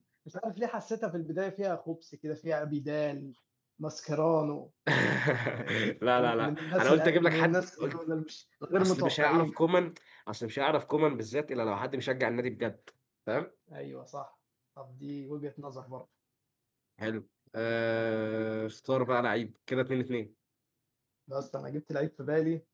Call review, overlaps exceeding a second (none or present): present